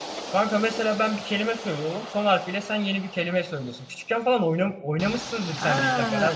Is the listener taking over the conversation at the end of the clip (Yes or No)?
Yes